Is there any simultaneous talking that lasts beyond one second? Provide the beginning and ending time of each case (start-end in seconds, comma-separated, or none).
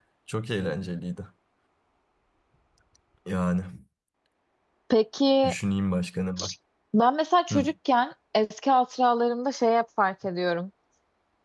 none